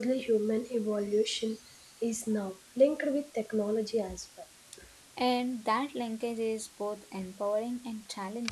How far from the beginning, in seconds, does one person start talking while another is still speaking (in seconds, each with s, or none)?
none